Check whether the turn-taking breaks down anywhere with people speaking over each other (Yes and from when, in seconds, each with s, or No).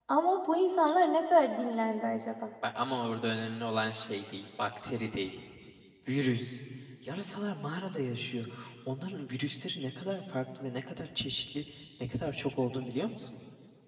No